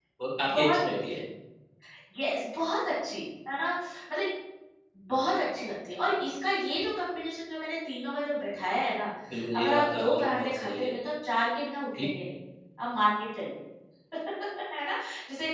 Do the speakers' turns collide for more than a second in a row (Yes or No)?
Yes